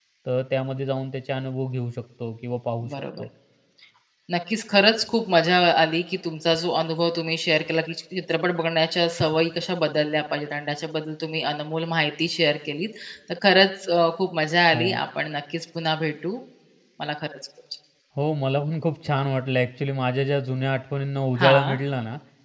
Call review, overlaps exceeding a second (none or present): none